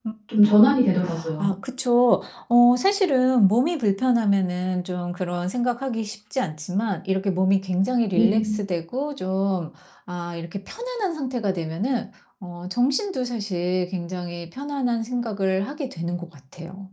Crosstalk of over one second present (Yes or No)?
No